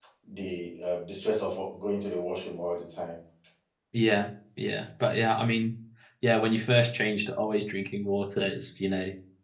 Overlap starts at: none

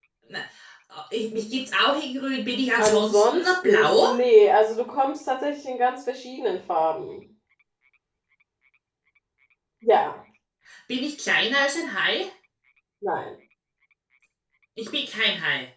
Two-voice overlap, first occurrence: 2.8 s

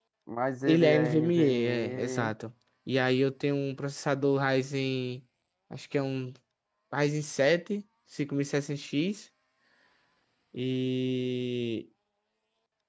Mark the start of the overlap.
0.7 s

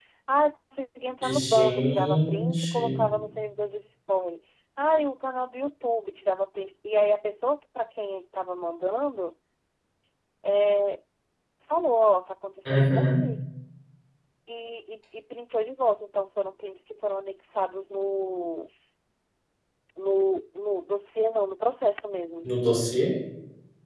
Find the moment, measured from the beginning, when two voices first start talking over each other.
1.5 s

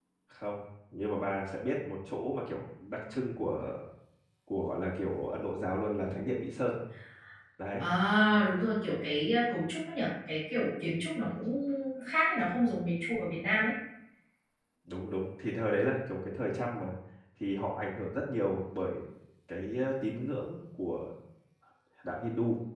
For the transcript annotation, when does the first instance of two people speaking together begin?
none

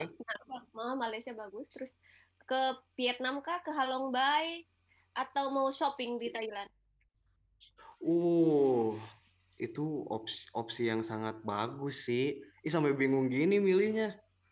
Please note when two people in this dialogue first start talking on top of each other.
none

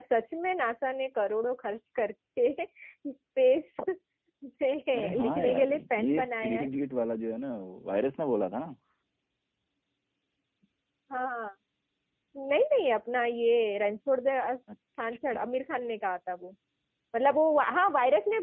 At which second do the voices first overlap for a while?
5.0 s

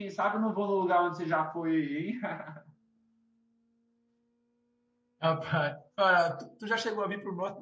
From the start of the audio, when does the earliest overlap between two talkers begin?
none

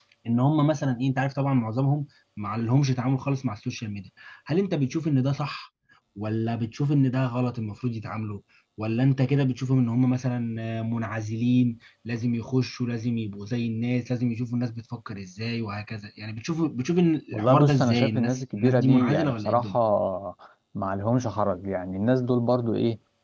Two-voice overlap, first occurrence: 17.3 s

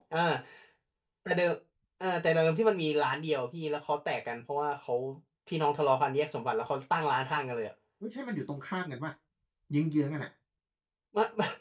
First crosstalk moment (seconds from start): none

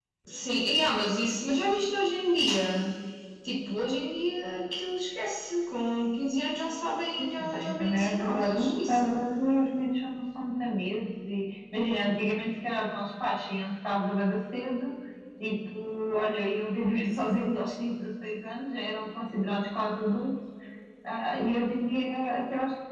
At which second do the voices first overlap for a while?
7.2 s

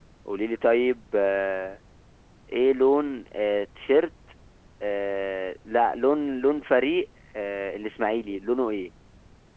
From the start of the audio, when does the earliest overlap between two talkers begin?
none

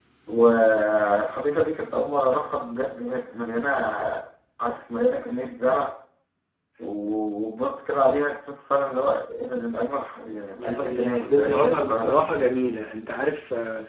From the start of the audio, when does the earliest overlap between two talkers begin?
10.6 s

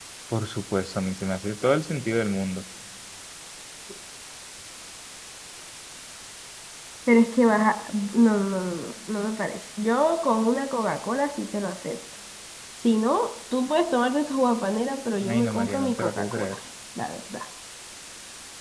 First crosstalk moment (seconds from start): 15.2 s

